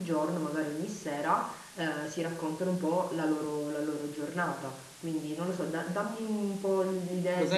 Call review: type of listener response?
taking over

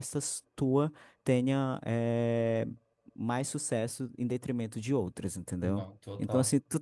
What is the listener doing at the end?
listening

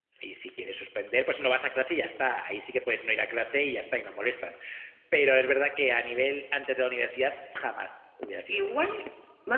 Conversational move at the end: taking over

